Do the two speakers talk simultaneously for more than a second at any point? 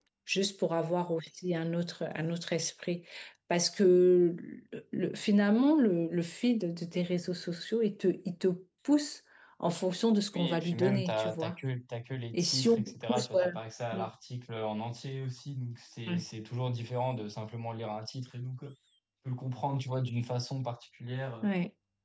Yes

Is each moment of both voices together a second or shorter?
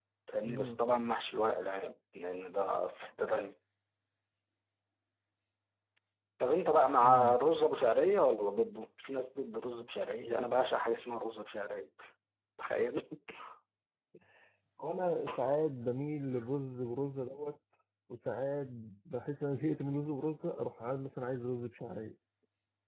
Yes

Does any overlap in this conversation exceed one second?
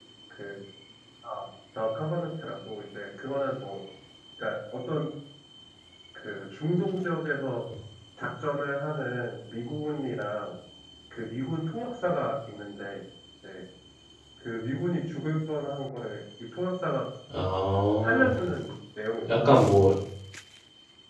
No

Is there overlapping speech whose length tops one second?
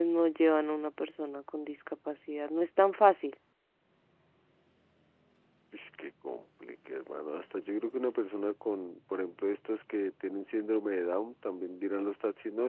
No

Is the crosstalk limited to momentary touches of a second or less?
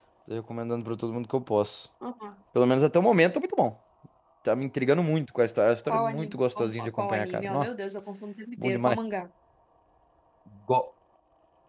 No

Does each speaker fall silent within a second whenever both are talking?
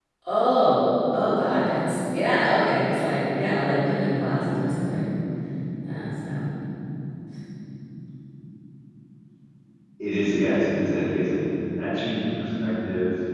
Yes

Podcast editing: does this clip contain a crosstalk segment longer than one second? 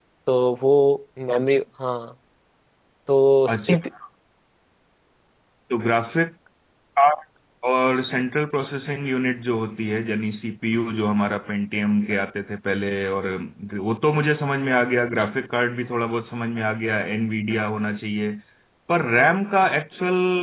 No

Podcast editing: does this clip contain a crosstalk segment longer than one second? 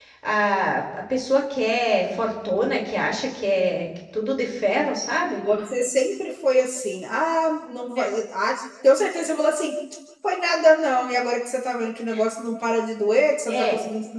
No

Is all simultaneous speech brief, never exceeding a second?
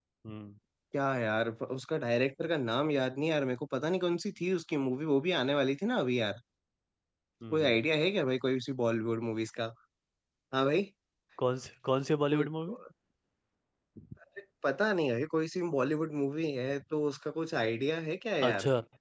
Yes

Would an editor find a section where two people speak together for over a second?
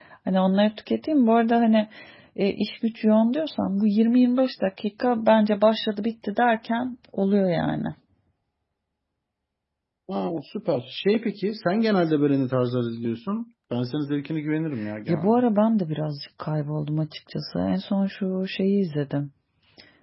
No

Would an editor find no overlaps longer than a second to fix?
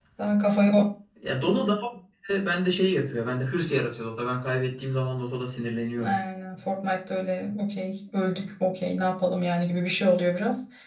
Yes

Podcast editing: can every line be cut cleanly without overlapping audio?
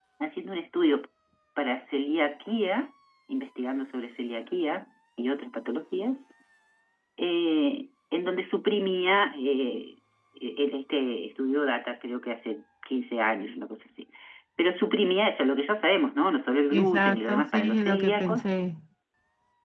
No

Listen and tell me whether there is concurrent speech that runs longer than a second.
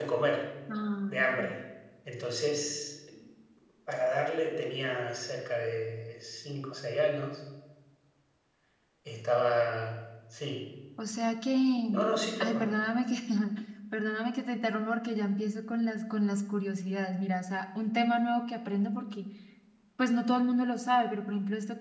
No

